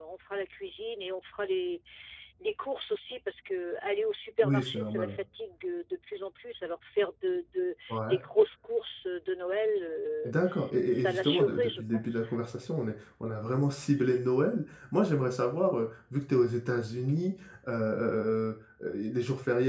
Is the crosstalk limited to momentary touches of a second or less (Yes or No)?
No